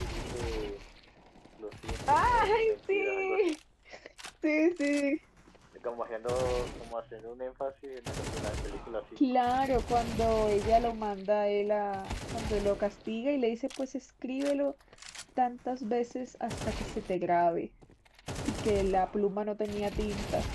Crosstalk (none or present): present